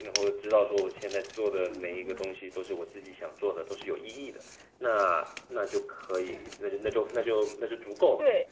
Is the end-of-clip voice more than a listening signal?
Yes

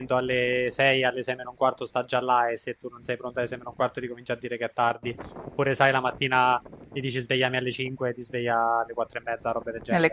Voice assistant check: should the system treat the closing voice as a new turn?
Yes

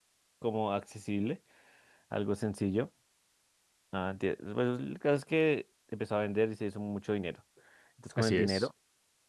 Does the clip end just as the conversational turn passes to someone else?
No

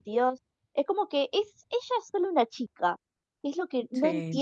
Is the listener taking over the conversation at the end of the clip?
No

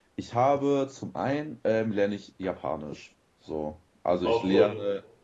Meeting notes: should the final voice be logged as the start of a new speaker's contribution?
No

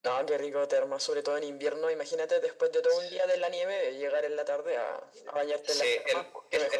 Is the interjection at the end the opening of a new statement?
Yes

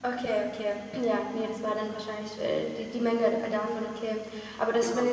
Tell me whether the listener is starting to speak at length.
No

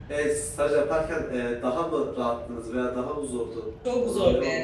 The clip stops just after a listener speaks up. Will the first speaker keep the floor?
No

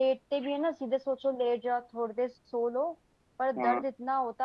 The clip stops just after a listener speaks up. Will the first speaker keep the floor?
Yes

